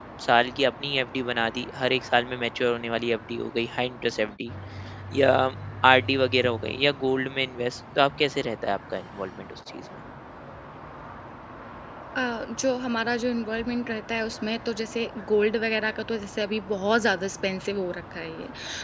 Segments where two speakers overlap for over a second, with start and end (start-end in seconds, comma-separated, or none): none